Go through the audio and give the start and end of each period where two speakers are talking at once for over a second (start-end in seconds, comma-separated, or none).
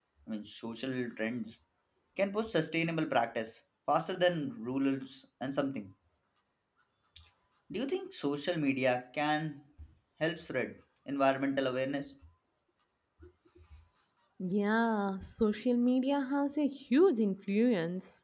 none